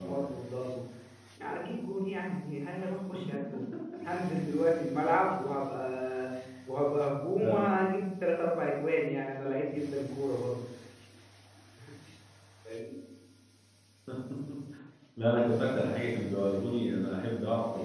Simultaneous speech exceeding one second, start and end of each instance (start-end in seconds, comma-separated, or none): none